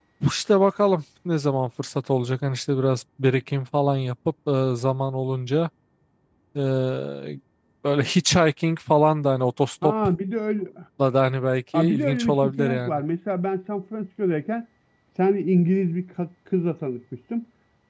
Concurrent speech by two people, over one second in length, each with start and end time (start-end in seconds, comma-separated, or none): 11.7-13.0